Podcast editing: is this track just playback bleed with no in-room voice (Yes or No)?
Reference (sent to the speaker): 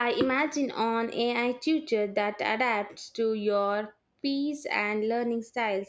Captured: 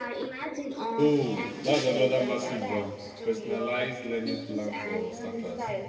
No